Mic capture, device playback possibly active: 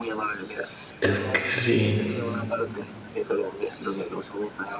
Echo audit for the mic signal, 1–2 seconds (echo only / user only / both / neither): both